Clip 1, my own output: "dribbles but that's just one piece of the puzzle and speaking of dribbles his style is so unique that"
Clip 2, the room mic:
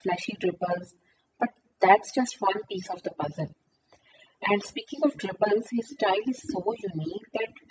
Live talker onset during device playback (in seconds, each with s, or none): none